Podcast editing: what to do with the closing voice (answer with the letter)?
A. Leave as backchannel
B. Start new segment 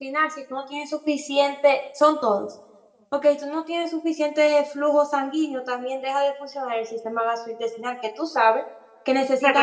B